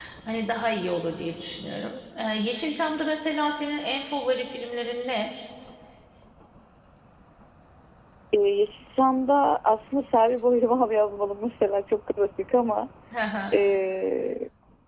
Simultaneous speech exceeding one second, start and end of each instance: none

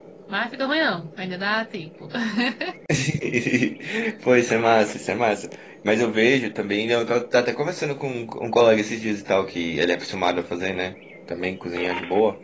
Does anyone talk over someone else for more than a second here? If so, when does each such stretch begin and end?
none

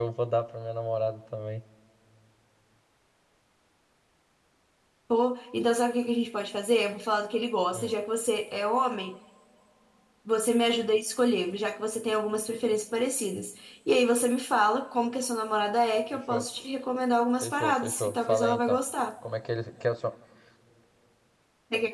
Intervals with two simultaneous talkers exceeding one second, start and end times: 17.4-18.8

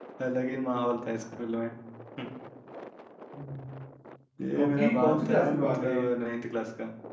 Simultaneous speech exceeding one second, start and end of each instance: 4.5-6.0

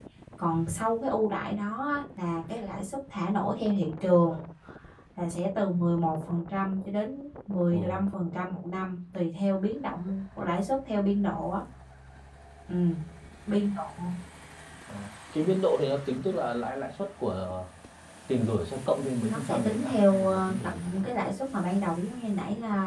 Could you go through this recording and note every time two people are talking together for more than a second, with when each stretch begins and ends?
19.3-20.8

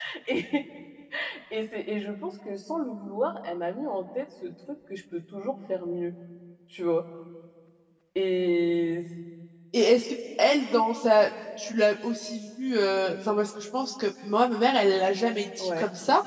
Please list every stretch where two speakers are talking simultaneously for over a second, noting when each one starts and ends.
none

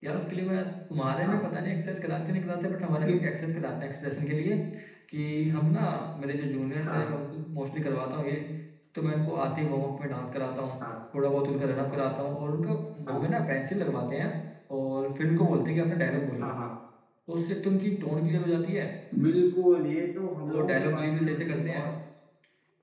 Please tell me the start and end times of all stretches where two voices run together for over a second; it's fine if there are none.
20.5-21.8

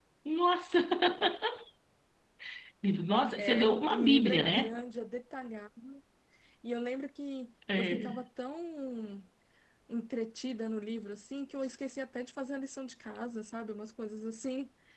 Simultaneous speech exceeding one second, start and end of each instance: 3.3-4.8

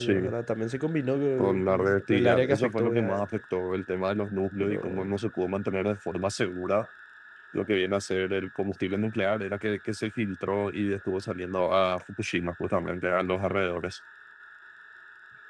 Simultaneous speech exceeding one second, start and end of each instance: 1.4-3.2

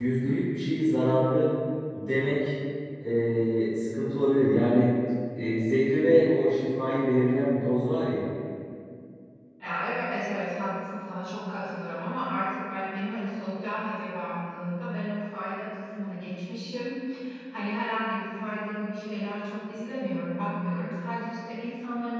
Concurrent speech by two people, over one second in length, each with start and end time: none

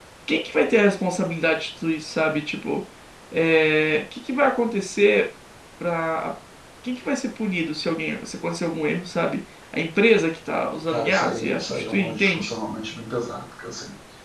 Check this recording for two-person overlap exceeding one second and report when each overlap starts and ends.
10.9-12.5

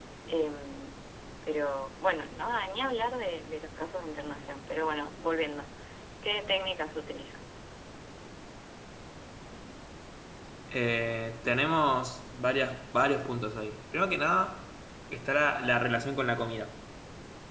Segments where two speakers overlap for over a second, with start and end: none

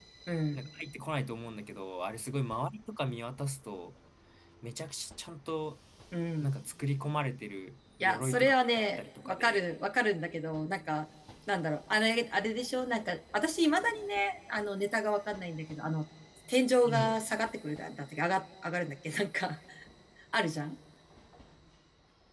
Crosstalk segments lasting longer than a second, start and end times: 8.0-9.6

